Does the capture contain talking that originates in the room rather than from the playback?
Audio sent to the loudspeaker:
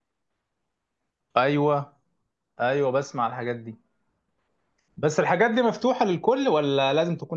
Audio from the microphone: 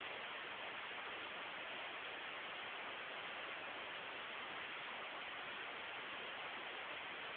No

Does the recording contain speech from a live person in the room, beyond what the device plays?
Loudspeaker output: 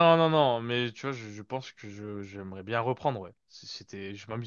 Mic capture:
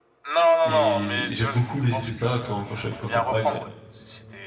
Yes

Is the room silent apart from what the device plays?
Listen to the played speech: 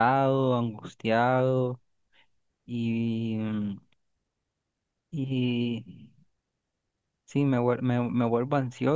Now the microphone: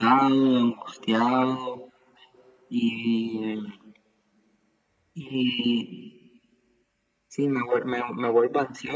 Yes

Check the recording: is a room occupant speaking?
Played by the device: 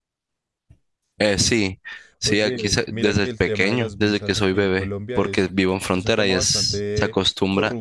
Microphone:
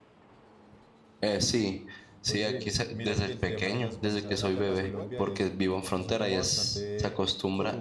Yes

